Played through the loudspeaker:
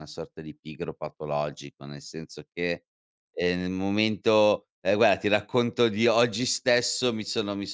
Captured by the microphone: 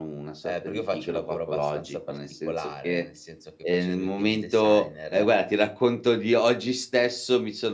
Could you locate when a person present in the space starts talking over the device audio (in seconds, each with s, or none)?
0.5 s